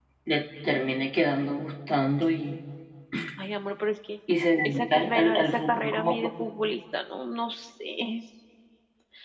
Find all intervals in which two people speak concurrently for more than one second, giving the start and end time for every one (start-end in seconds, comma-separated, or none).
4.6-6.7